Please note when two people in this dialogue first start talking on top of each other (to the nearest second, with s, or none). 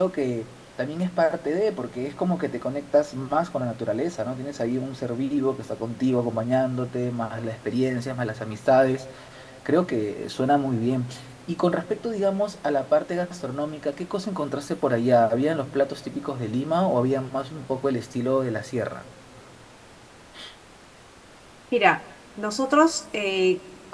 none